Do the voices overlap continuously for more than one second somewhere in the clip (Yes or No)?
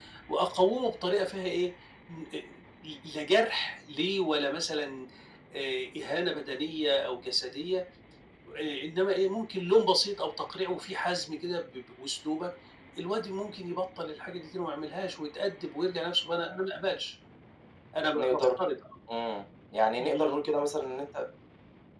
No